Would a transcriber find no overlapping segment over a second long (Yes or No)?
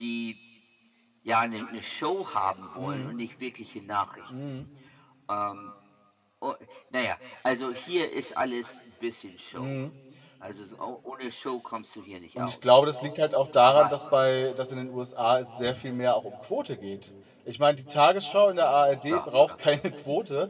Yes